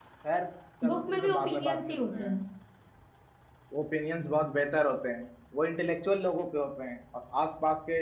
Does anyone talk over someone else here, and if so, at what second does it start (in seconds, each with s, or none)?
0.9 s